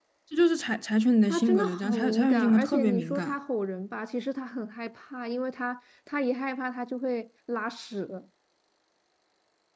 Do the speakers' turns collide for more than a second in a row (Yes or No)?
Yes